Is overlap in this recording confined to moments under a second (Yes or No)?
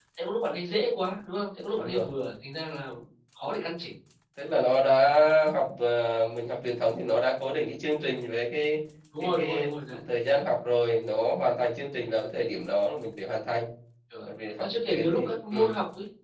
No